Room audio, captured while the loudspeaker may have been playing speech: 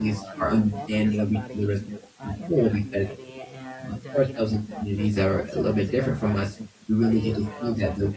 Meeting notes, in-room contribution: present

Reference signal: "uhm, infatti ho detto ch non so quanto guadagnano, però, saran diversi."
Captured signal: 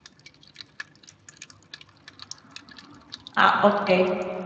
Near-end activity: present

